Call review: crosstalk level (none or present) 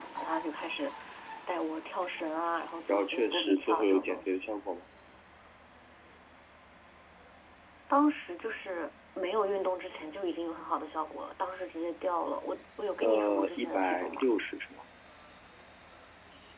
present